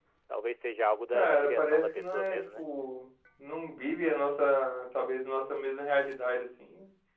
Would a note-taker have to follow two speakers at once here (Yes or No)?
Yes